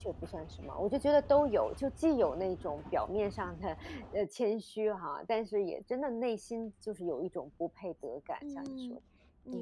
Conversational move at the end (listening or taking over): taking over